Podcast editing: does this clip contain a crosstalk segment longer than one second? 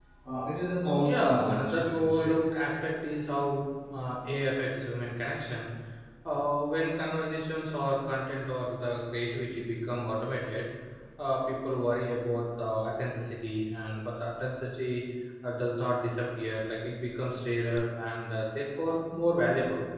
Yes, from 1.0 s

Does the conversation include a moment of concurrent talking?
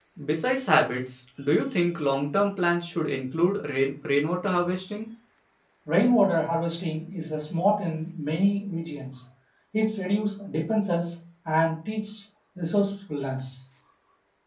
No

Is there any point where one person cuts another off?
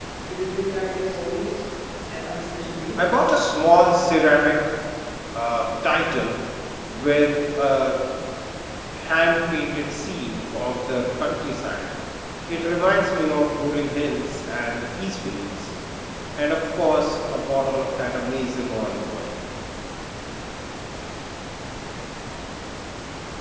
No

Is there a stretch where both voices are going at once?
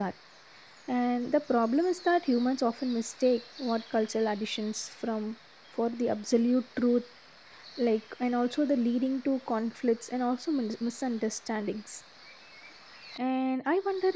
No

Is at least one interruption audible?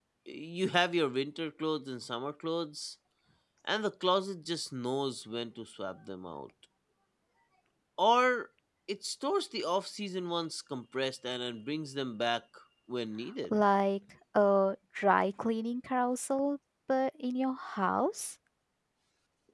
No

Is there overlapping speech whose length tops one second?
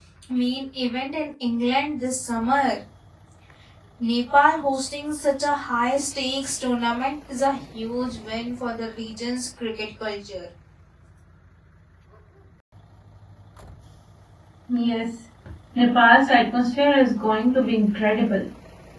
No

